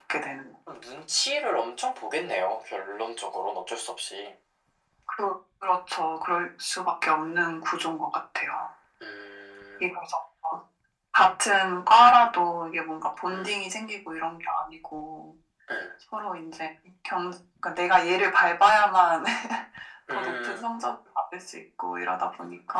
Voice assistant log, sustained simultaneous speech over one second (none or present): none